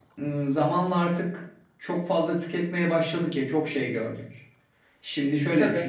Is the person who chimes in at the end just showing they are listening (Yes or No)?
Yes